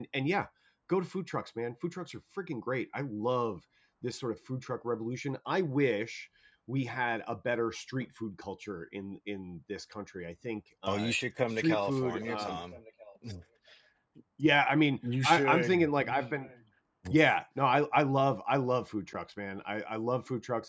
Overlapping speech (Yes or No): Yes